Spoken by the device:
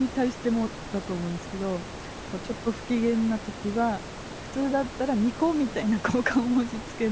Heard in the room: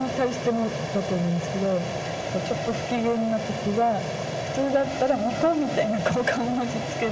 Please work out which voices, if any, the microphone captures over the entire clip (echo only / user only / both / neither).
echo only